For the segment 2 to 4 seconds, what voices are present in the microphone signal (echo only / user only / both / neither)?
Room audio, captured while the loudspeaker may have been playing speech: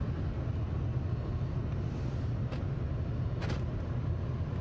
neither